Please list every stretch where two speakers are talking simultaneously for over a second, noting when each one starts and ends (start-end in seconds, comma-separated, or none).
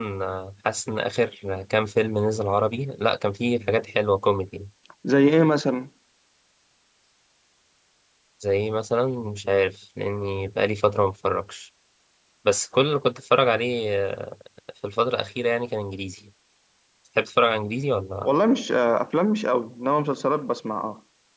none